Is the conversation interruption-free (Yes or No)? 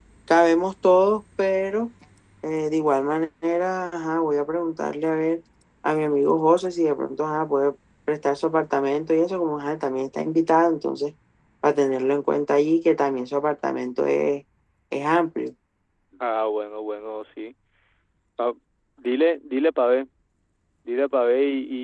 Yes